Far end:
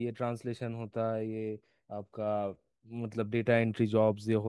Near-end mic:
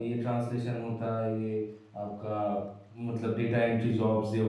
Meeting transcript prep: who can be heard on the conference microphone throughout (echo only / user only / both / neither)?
echo only